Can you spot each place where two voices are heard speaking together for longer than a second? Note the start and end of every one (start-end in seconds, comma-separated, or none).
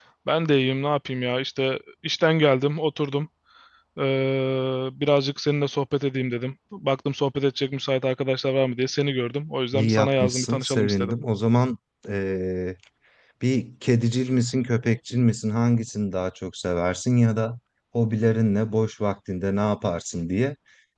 9.7-11.2